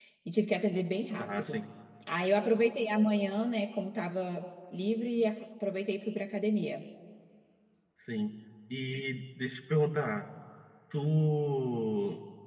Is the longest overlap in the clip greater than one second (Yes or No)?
No